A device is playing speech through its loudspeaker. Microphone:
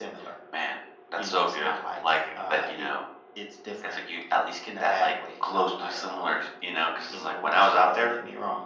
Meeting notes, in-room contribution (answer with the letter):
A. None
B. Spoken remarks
A